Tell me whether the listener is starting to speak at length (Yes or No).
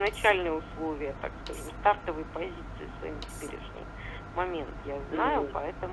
No